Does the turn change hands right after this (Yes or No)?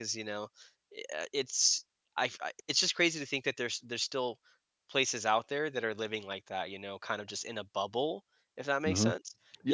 Yes